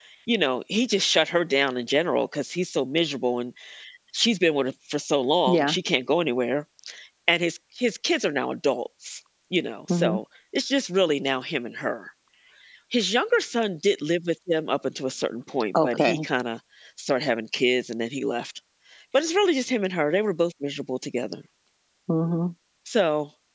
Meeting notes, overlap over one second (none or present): none